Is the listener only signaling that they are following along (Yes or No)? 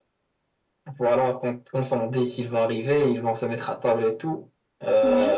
Yes